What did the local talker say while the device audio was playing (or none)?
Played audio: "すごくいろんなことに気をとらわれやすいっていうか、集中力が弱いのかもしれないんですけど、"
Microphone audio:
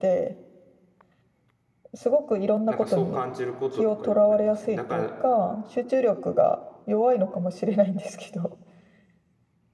なんかそう感じることとかよくありますね。だから、